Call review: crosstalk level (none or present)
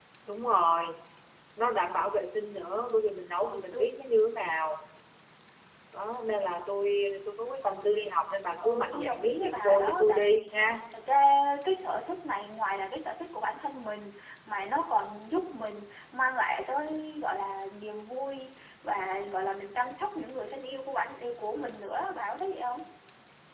present